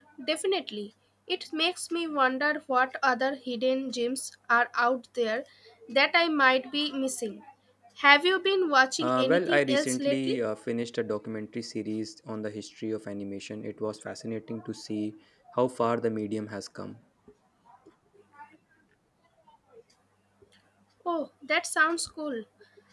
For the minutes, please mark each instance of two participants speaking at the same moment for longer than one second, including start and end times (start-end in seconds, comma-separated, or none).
9.0-10.3